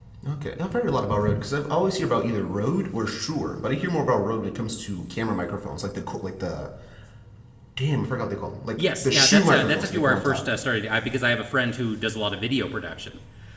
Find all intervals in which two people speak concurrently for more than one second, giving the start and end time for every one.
8.8-10.4

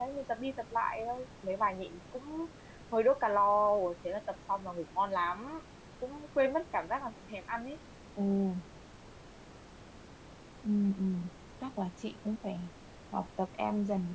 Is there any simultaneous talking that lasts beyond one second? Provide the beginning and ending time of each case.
none

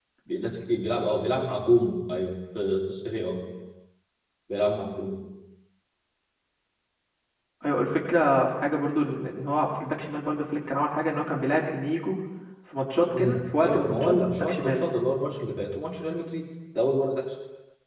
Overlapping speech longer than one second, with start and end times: 13.1-14.9

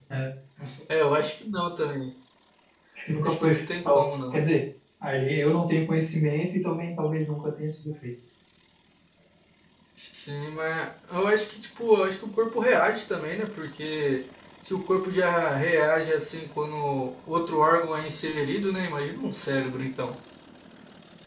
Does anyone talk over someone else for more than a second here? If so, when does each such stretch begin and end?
3.2-4.4

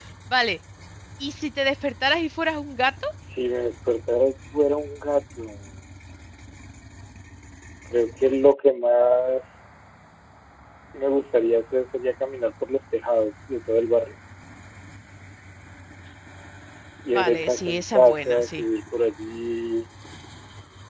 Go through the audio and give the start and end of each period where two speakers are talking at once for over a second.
17.1-18.6

